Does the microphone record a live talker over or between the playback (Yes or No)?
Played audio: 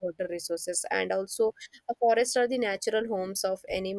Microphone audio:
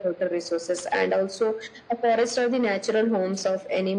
No